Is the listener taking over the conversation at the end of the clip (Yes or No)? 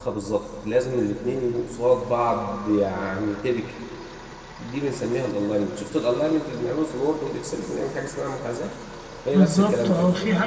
Yes